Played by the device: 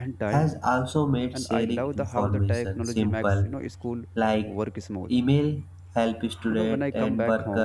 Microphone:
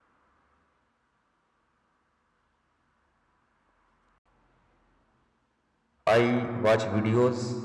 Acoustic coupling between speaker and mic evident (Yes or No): No